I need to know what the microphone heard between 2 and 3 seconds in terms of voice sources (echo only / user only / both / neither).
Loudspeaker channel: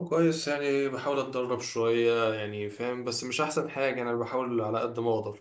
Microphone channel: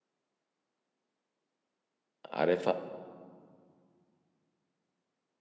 user only